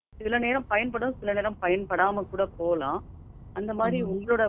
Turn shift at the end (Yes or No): No